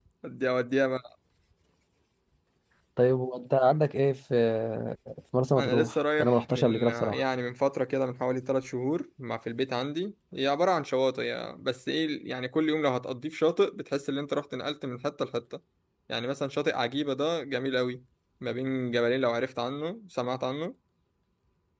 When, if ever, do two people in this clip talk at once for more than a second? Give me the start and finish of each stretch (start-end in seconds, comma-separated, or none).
5.6-7.2